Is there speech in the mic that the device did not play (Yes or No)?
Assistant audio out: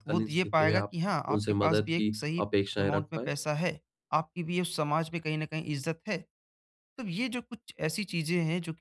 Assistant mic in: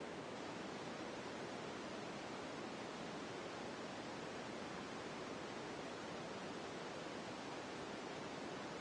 No